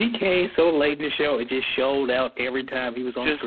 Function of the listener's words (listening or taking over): taking over